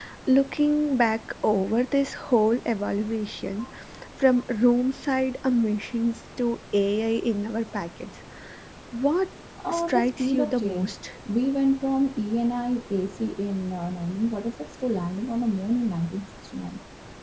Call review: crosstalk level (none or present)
present